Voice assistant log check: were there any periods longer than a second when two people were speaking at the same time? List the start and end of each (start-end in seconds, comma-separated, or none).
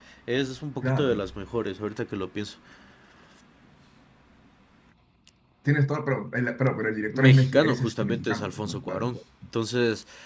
7.1-9.1